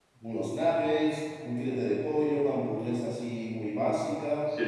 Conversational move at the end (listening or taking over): listening